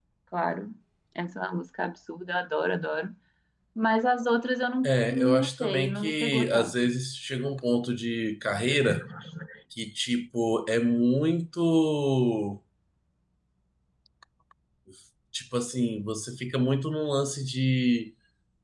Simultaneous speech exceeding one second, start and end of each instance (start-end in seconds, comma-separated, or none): 4.8-6.7